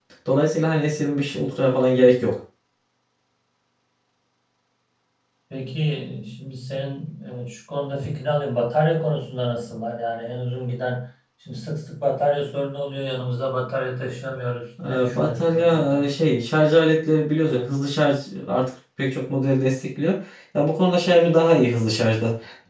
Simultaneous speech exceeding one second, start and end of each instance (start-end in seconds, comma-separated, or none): 14.8-16.1